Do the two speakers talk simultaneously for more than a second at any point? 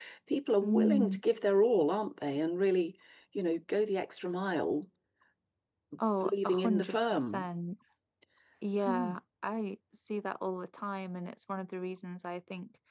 Yes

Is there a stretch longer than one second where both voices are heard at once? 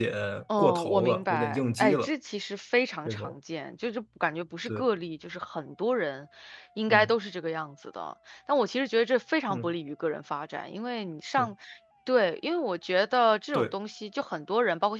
Yes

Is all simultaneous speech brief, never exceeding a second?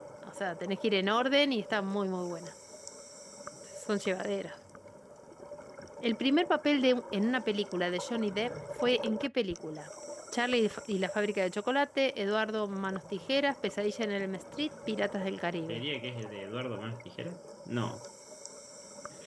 Yes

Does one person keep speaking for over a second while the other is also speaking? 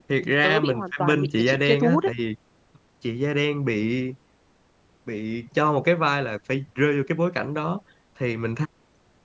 Yes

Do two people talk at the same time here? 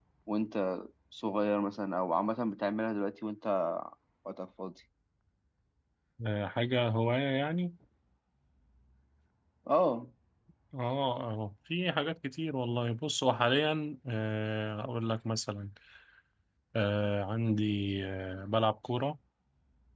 No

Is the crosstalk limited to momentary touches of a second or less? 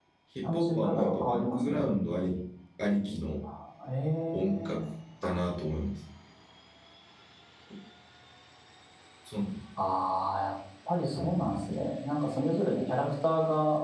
No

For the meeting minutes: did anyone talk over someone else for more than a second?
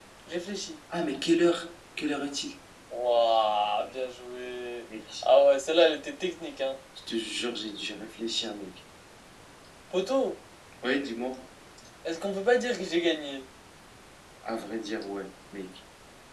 No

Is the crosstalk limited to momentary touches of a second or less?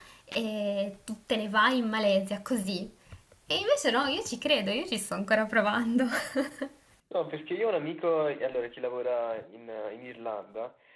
Yes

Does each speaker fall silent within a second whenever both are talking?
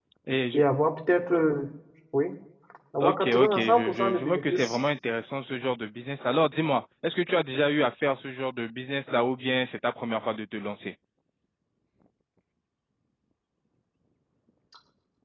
No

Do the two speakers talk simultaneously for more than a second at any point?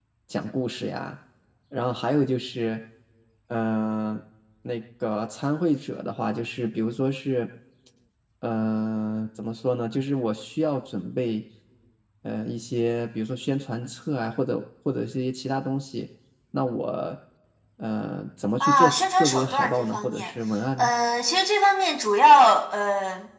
Yes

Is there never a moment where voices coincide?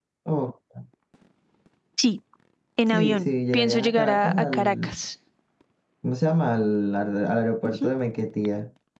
No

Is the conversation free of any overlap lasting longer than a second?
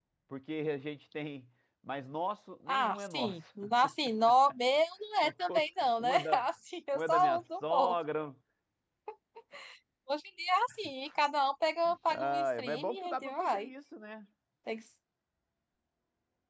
No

